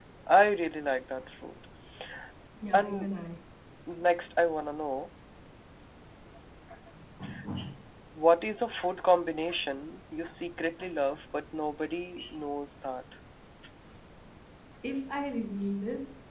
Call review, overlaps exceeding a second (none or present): none